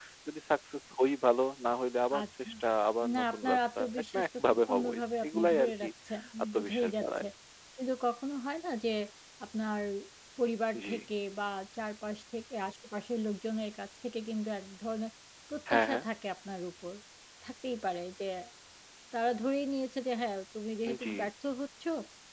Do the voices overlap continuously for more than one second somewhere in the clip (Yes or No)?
Yes